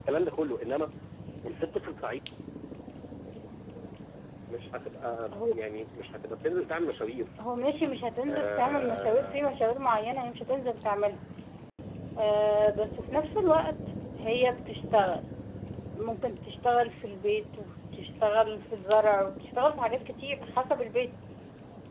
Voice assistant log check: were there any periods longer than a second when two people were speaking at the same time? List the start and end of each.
8.3-9.5

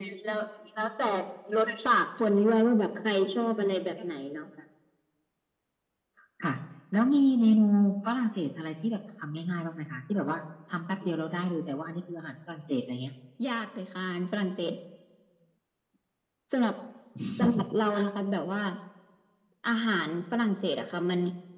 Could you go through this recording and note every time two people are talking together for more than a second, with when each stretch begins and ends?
none

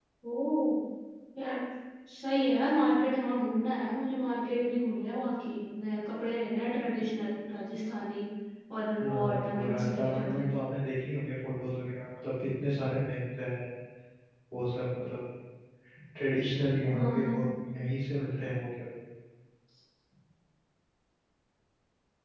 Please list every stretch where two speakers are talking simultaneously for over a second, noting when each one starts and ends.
9.0-10.4

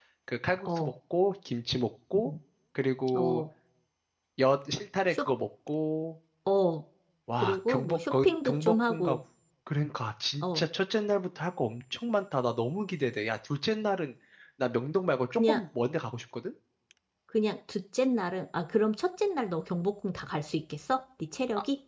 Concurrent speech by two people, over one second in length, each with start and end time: 7.4-9.2

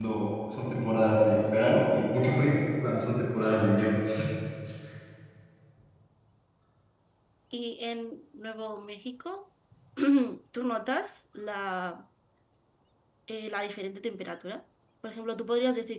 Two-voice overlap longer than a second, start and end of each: none

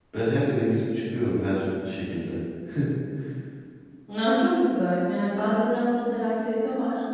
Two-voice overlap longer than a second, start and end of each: none

